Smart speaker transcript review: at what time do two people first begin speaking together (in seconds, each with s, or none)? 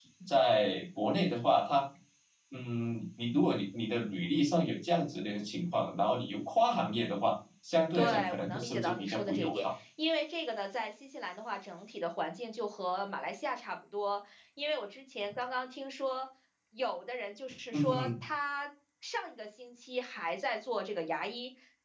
7.9 s